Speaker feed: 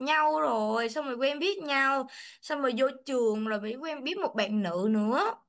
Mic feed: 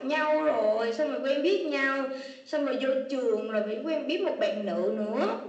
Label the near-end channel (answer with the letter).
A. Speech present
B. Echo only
B